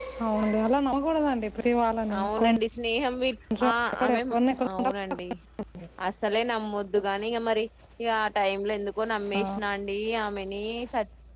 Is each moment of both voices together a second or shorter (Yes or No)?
Yes